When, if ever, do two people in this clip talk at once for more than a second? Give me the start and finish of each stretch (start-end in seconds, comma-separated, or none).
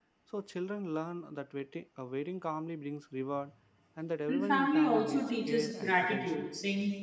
4.3-6.5